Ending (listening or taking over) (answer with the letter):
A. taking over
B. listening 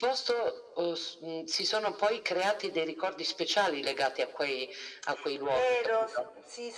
A